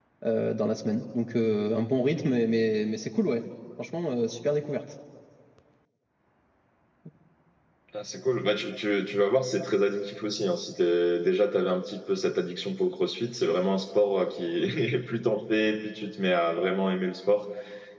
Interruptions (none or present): none